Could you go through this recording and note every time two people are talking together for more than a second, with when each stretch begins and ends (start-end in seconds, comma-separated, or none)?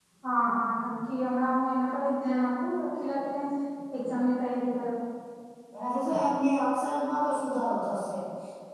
none